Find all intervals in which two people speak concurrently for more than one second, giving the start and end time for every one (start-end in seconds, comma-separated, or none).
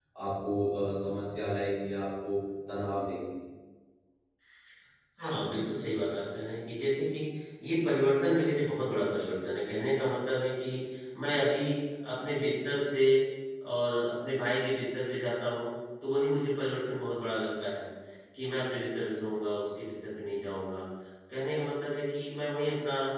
none